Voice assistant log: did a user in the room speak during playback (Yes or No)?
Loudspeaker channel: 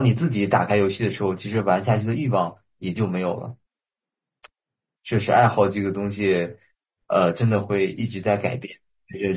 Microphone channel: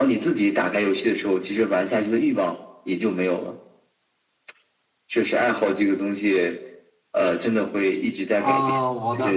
Yes